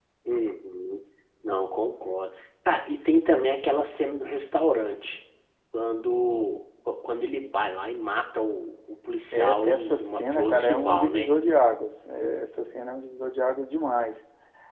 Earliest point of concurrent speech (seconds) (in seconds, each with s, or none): 9.3 s